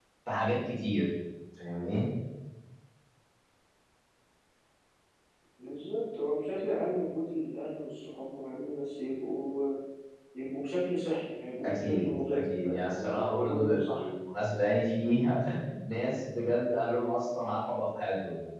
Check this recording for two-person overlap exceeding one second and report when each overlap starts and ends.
11.6-14.1

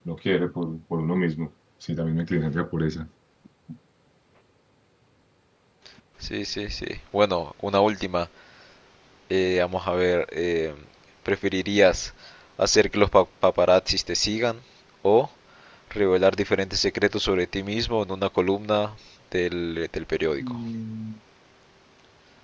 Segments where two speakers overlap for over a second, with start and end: none

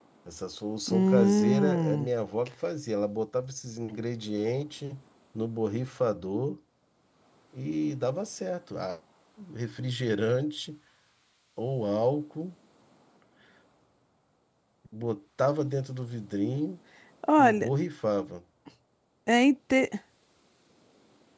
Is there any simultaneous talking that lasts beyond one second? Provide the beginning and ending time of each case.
0.9-2.1

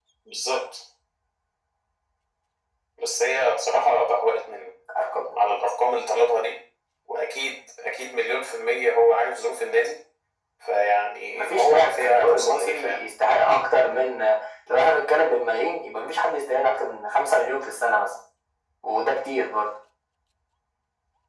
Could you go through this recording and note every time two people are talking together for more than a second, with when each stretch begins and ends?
11.3-13.0

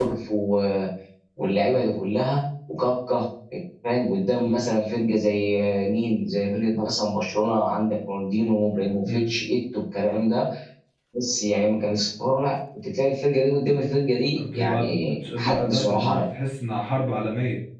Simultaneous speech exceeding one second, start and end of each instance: 14.5-16.2

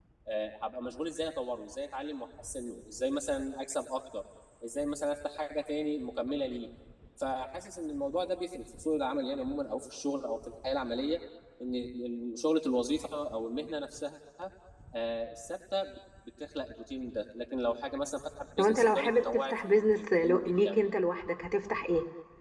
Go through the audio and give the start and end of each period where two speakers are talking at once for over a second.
18.6-20.8

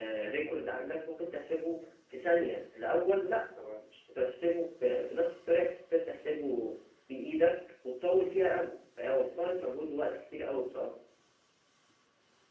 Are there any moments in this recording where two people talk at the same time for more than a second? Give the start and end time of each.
none

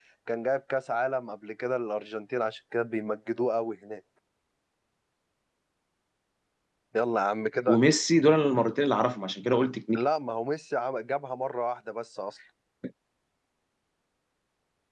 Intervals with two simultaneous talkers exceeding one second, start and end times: none

